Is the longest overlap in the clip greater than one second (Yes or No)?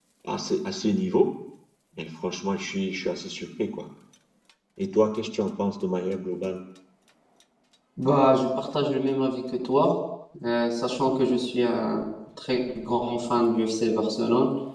No